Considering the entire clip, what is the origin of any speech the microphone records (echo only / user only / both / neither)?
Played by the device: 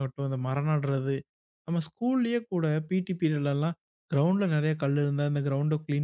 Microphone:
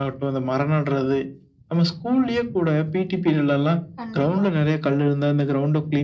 both